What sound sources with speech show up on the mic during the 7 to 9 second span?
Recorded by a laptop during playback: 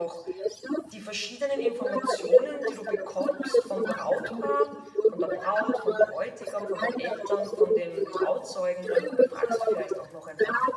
both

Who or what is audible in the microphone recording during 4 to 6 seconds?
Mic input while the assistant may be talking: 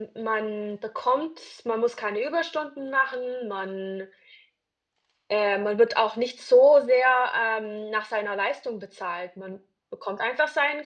user only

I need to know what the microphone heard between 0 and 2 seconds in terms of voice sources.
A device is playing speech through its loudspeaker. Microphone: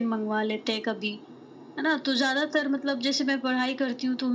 echo only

